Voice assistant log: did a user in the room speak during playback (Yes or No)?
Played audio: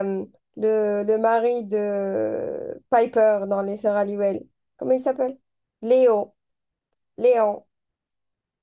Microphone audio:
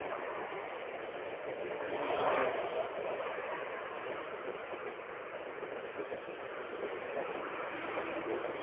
No